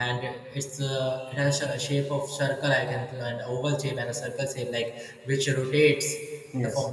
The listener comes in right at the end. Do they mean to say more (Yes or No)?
No